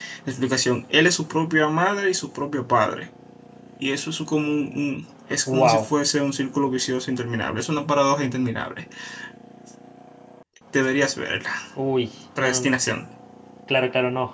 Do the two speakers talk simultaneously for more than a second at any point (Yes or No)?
No